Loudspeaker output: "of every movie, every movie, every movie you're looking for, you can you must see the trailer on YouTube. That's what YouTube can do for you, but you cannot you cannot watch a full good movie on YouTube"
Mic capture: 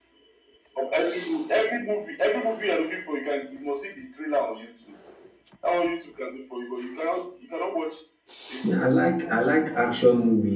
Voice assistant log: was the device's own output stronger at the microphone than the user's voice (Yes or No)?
No